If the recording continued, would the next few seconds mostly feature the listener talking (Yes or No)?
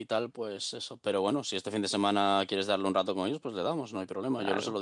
Yes